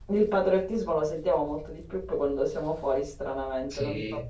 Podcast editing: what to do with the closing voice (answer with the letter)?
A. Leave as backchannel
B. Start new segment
B